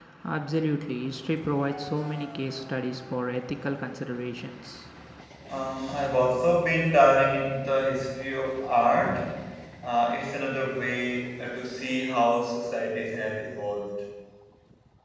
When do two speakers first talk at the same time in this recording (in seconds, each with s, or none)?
none